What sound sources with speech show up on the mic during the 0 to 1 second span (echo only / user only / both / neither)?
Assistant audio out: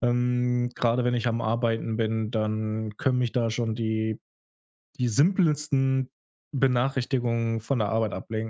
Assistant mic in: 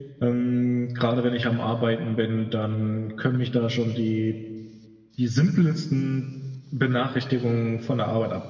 echo only